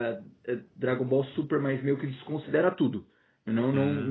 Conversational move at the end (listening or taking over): listening